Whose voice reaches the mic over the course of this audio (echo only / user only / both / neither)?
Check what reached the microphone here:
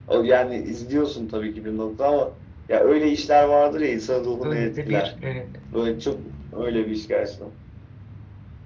both